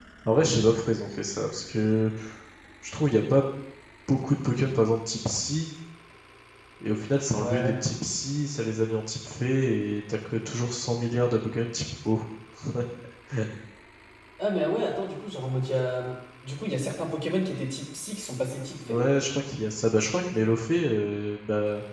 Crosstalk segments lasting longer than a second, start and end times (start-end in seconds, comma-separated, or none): none